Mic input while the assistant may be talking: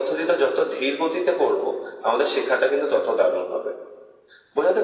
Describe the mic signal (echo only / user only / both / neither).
echo only